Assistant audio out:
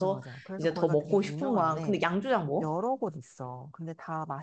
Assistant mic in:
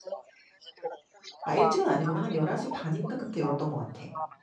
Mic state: both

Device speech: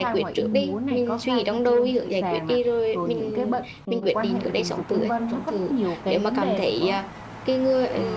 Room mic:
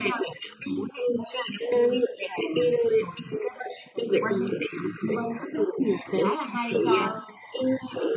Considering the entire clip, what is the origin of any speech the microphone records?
both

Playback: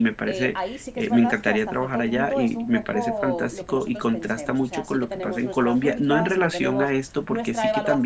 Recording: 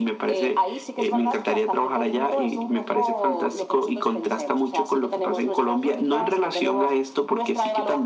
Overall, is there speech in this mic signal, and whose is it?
echo only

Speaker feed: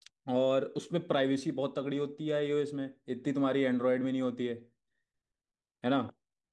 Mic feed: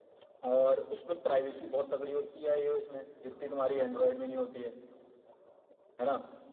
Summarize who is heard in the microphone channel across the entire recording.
echo only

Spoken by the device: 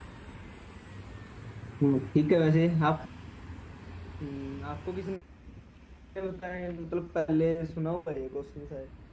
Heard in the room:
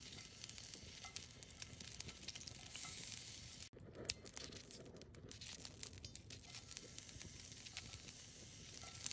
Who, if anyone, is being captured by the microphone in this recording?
neither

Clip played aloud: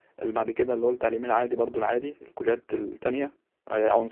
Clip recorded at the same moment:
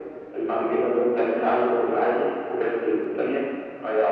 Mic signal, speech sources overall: echo only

